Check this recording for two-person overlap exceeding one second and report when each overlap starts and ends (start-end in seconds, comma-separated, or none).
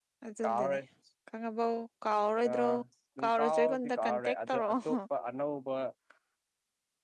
3.2-5.0